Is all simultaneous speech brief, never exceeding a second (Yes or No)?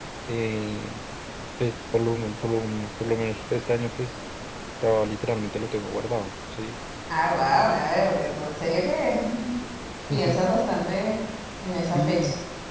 Yes